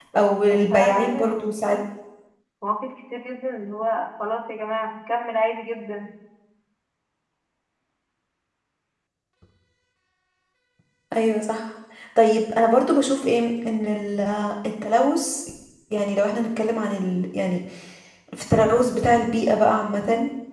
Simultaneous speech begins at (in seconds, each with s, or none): 0.5 s